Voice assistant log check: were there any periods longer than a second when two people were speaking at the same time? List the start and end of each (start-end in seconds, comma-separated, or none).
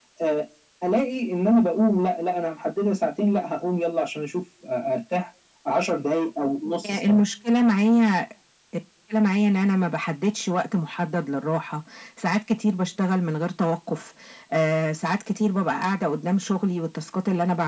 none